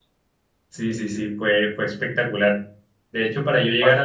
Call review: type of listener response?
listening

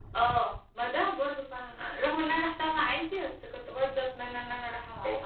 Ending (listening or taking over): taking over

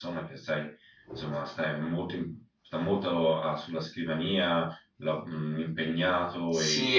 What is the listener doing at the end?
taking over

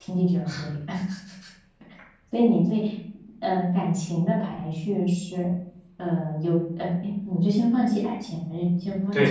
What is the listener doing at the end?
taking over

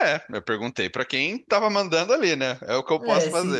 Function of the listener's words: taking over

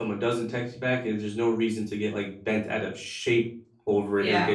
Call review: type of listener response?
listening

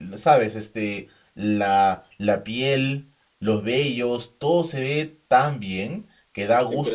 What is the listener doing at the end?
taking over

